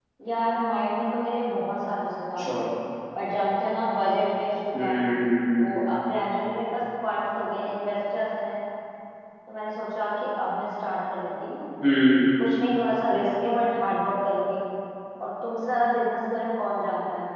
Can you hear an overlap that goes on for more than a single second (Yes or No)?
No